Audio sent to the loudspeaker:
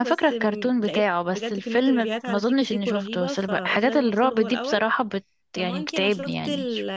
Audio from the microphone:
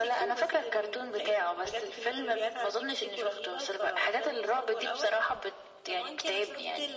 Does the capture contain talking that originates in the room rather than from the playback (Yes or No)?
No